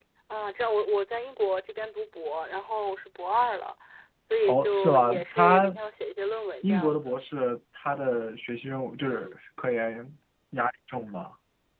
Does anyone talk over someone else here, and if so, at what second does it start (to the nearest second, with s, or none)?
4 s